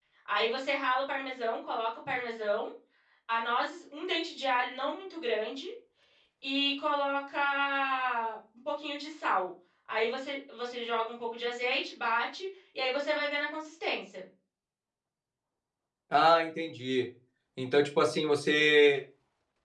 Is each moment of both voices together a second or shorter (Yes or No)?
Yes